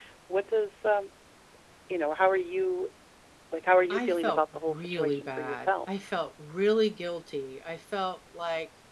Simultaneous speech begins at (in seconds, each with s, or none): 3.9 s